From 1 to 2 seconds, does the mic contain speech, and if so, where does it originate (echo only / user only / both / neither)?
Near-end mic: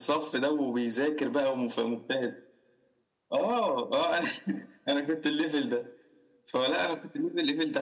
echo only